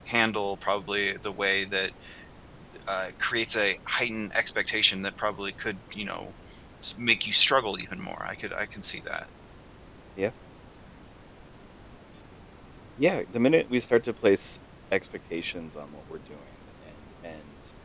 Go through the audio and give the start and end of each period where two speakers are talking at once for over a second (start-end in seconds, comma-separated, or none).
none